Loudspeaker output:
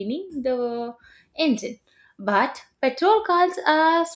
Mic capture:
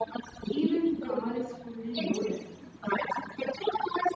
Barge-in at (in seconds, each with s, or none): 0.5 s